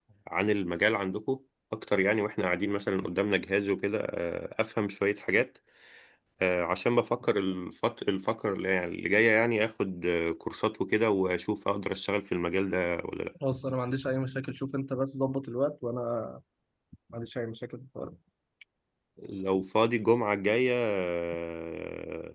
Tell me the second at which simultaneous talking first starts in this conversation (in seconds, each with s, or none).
none